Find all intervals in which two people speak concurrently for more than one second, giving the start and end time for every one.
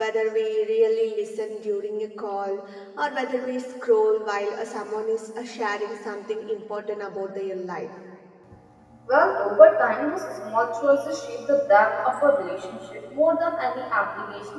none

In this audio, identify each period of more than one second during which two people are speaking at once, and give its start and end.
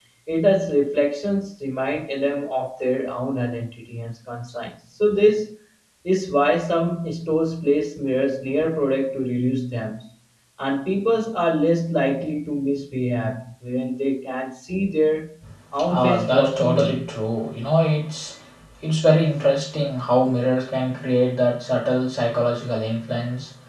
15.9-17.1

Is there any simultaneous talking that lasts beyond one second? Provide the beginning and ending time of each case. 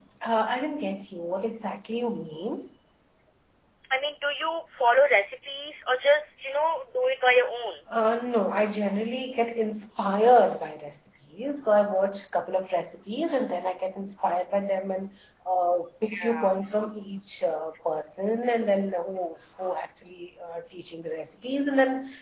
none

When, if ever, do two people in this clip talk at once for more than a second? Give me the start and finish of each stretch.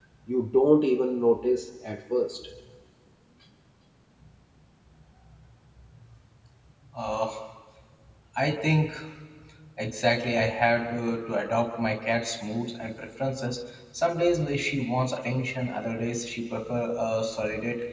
none

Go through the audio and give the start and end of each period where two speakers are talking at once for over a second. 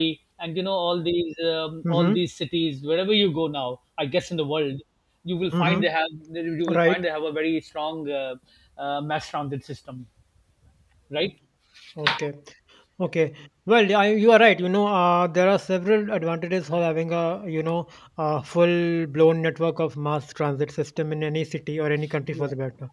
none

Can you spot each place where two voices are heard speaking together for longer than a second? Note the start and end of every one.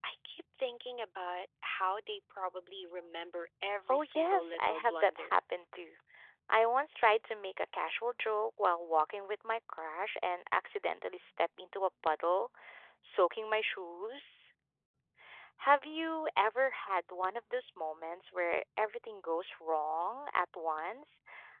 3.9-5.4

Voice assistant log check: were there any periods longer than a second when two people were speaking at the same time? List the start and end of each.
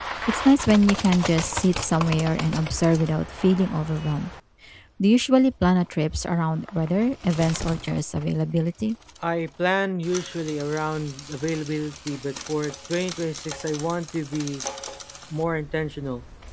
none

